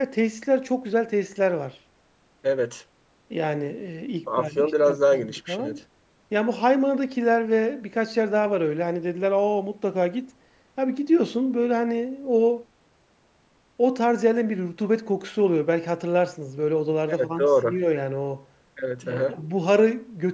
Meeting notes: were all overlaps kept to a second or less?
No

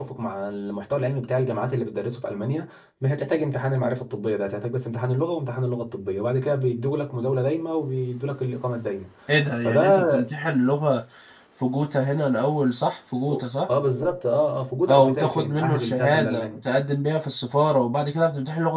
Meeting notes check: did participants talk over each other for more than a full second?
Yes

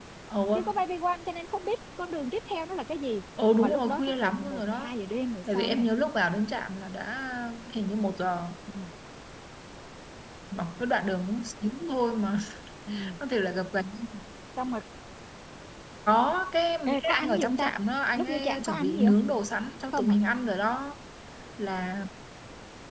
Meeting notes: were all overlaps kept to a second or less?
No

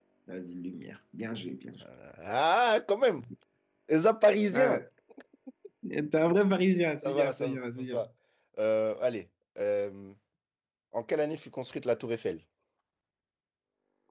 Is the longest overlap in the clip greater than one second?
No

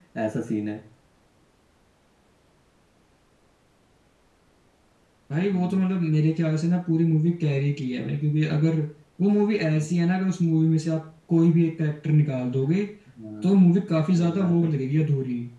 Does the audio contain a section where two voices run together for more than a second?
Yes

